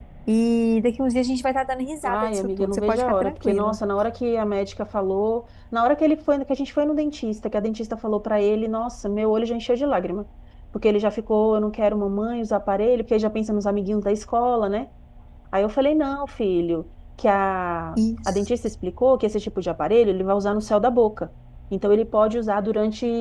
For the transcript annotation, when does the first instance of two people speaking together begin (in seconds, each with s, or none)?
2.0 s